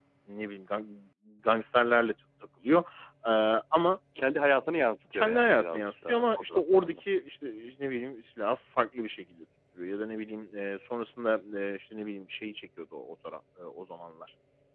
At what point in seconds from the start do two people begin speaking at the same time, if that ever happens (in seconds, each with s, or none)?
5.1 s